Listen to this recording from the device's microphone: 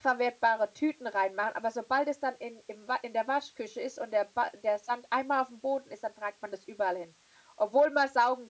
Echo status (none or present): none